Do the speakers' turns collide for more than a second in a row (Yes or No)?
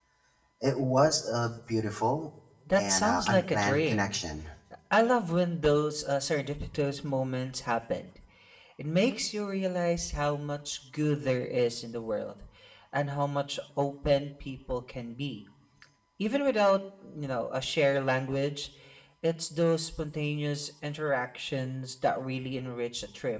Yes